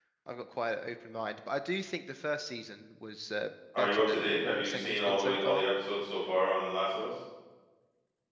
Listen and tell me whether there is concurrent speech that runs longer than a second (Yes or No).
Yes